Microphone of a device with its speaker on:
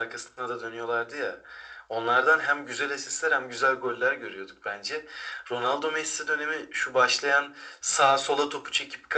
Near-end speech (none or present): none